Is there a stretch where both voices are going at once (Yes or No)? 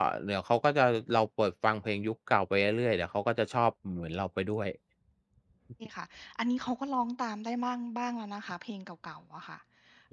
No